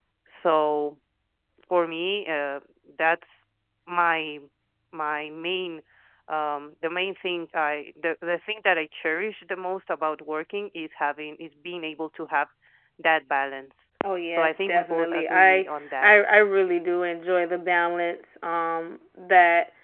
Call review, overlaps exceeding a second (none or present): present